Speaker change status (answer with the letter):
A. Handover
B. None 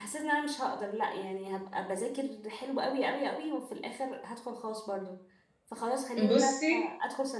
B